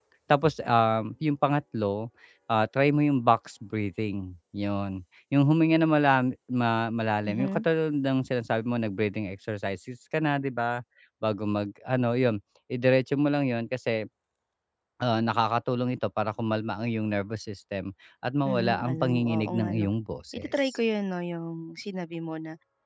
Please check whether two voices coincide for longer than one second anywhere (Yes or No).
Yes